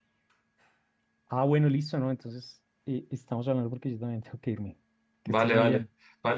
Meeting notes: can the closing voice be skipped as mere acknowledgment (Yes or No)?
No